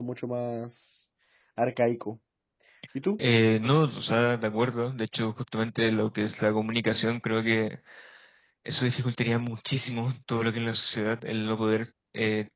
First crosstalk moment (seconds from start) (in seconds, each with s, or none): none